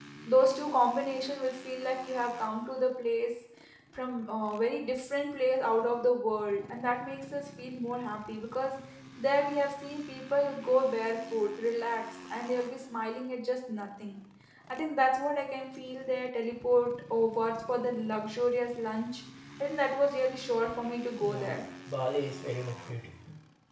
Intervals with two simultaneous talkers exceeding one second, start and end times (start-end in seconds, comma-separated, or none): none